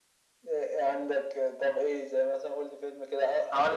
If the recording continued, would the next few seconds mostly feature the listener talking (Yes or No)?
Yes